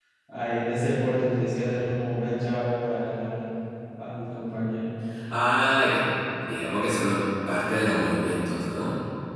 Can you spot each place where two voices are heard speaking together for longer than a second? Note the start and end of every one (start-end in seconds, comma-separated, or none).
none